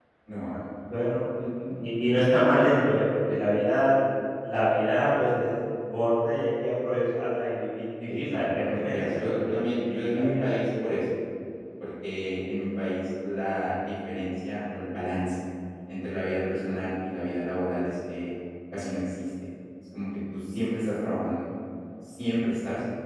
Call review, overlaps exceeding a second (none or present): present